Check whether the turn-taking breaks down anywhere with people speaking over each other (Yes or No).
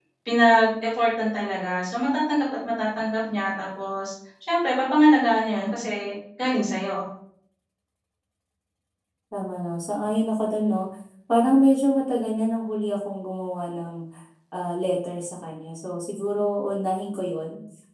No